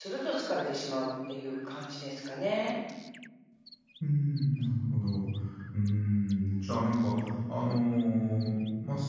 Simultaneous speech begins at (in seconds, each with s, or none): none